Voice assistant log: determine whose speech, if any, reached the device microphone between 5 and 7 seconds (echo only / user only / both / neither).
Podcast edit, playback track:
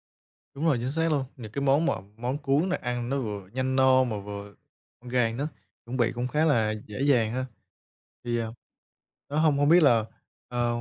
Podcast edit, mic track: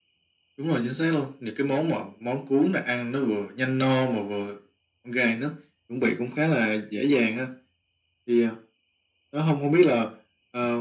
echo only